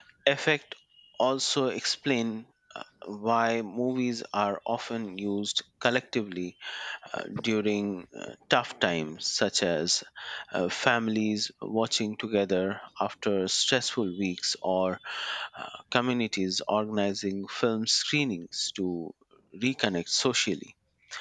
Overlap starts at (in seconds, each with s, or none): none